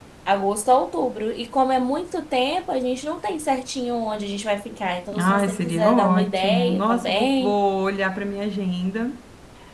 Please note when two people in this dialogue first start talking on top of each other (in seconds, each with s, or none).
5.1 s